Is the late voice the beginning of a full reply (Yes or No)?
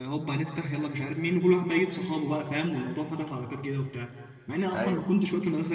No